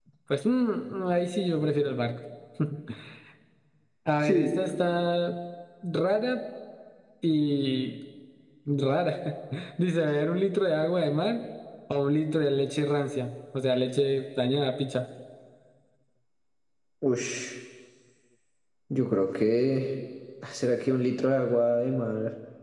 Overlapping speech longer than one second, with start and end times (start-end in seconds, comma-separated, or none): none